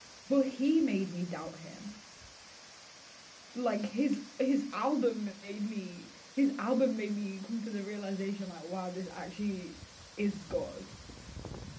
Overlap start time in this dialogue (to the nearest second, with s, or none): none